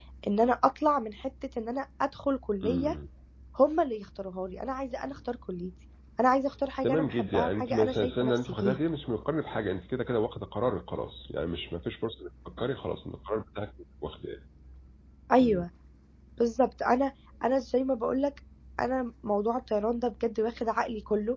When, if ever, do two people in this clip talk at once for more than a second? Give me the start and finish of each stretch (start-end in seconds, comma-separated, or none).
6.8-8.8